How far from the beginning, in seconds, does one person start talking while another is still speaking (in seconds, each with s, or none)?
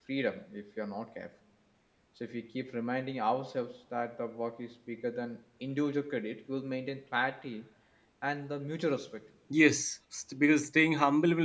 none